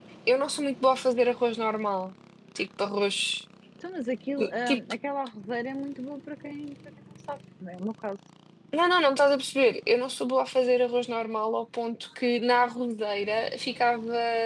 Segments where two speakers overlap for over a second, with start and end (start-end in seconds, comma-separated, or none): none